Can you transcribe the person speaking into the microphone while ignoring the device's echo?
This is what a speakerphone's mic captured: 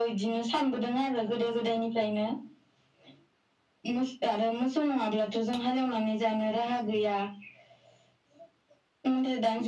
none

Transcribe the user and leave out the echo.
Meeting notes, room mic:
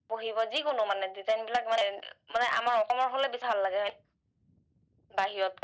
none

